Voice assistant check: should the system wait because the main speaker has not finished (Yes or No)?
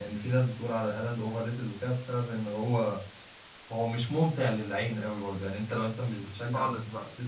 Yes